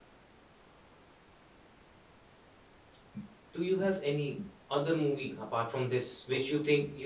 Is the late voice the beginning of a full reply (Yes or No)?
No